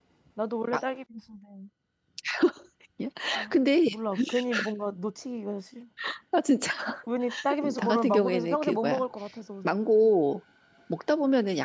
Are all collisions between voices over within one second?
No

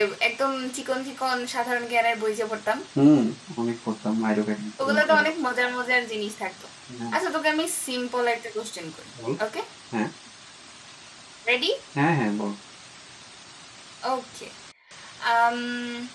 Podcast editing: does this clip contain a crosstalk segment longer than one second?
No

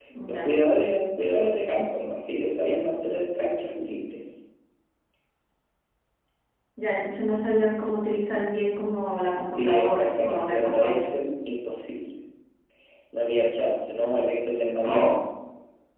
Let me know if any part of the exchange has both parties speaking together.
Yes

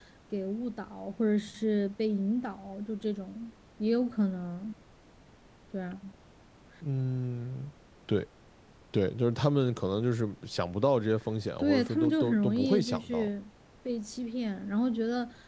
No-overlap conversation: No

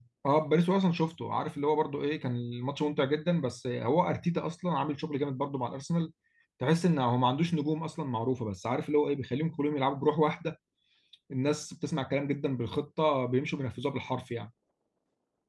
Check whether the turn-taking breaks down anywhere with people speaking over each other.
No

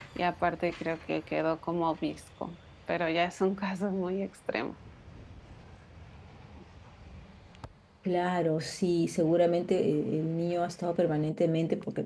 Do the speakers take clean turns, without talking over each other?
Yes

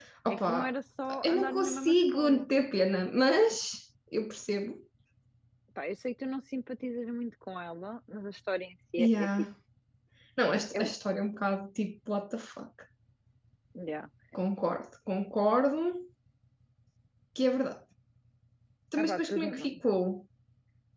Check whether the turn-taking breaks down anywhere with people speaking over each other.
Yes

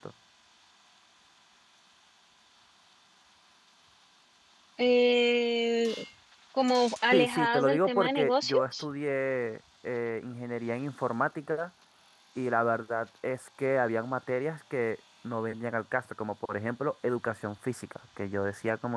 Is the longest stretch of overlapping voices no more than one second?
No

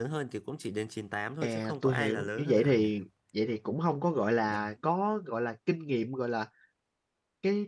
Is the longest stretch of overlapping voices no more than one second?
No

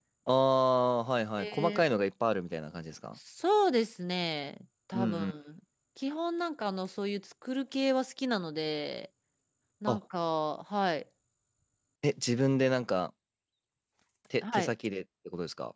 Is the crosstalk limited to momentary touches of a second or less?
Yes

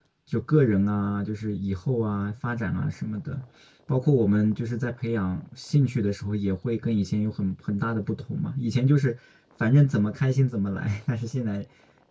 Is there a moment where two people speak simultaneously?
No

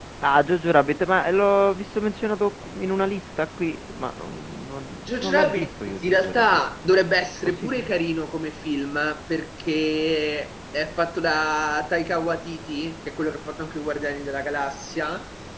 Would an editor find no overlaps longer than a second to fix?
No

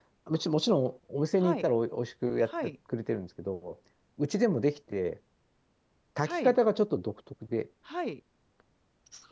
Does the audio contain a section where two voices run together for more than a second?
No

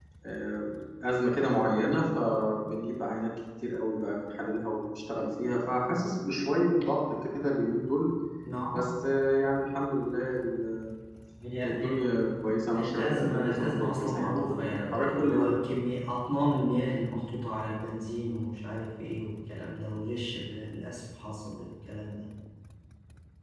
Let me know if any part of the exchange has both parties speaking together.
Yes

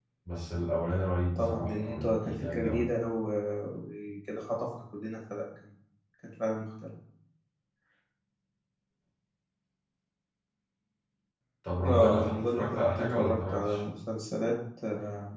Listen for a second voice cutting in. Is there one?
Yes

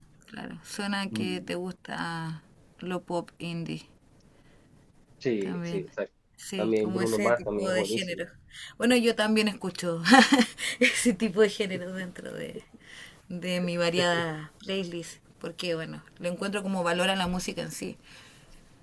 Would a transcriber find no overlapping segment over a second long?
No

